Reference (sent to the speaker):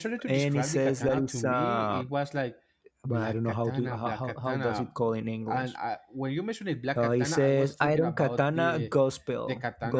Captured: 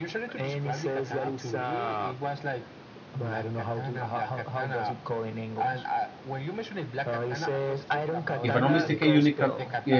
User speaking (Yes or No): Yes